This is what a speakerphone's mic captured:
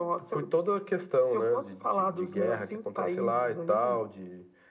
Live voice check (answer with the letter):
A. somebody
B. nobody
B